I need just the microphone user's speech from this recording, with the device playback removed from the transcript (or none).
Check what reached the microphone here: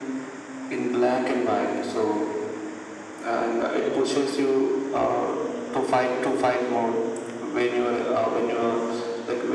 you know